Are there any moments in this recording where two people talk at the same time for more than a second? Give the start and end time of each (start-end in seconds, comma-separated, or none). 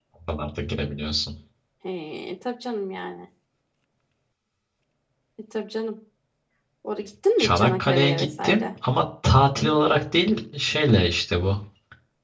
7.4-8.6